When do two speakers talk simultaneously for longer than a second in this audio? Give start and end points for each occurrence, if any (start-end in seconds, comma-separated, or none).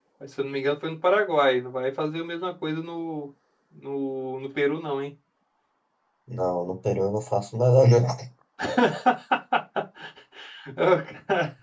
none